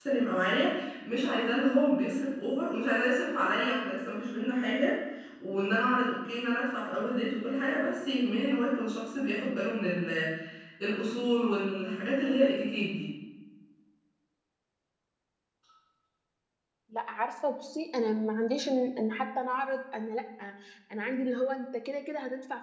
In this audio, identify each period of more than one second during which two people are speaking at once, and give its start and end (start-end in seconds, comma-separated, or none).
none